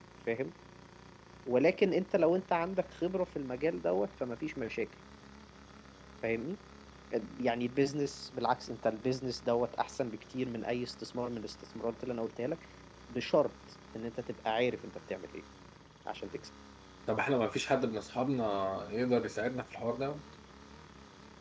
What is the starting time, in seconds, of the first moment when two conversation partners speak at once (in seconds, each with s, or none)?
none